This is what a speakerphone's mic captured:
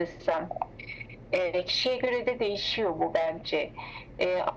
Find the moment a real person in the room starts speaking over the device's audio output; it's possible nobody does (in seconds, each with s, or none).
none